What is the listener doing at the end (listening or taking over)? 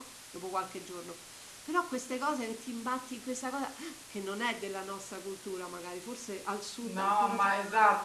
taking over